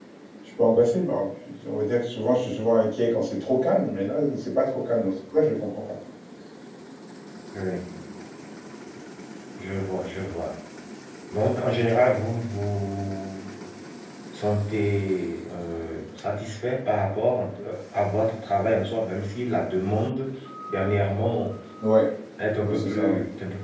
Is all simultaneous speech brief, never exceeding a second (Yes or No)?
Yes